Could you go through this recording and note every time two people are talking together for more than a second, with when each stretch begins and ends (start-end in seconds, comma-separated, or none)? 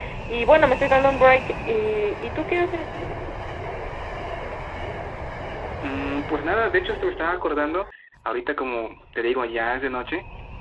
none